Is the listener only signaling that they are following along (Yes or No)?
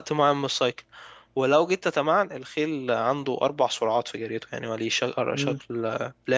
Yes